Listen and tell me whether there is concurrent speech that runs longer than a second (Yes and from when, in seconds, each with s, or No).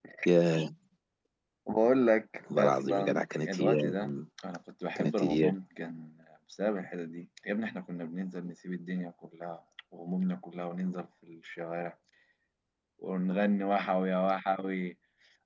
Yes, from 2.6 s